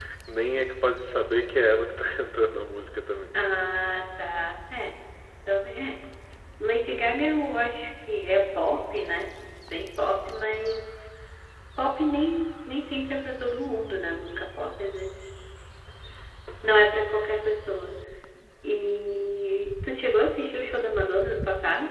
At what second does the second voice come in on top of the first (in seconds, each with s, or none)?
none